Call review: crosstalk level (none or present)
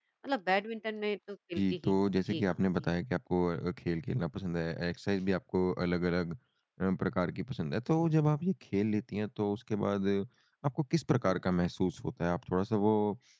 present